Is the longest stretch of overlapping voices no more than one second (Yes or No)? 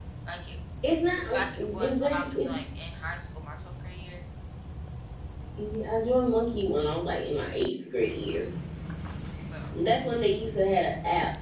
No